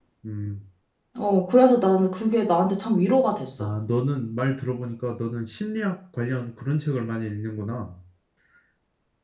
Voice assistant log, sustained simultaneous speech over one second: none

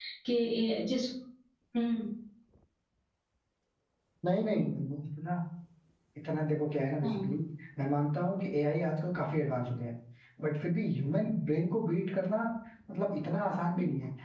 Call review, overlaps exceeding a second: none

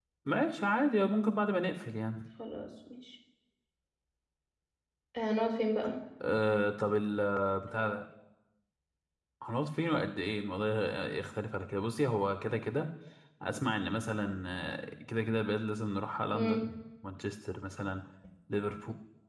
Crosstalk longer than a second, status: none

